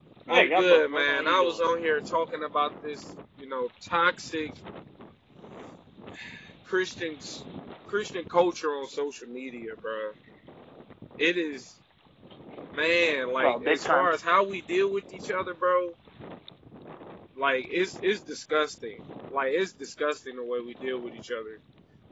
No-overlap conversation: No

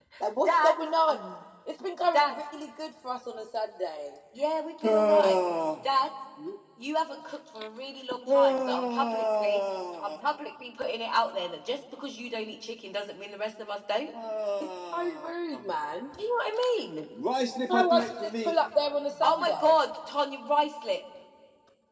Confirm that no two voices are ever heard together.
No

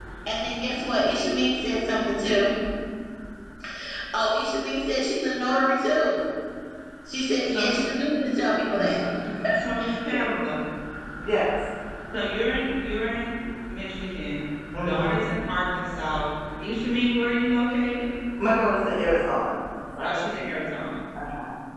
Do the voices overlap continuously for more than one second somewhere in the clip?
No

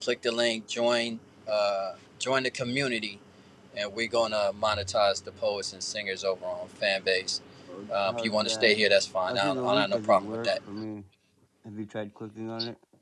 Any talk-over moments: Yes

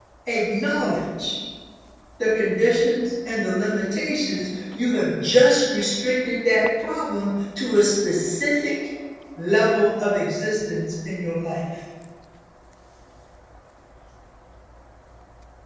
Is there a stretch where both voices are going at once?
No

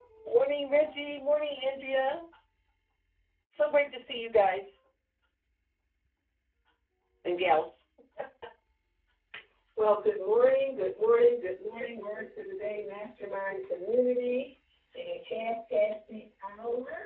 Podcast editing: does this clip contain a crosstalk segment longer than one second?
No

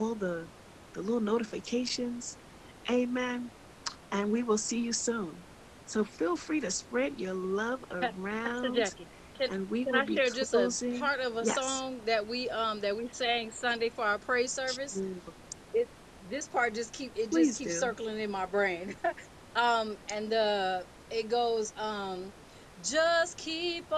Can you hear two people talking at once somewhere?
Yes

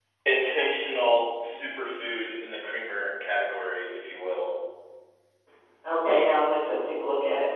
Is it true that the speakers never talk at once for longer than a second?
Yes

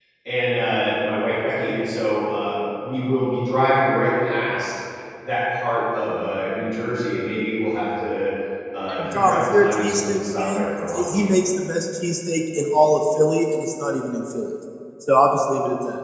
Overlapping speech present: Yes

